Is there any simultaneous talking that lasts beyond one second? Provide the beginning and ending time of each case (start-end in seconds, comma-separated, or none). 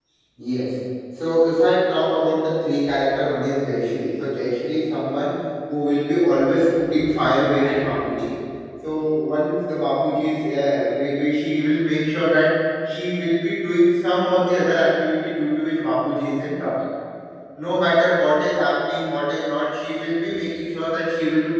none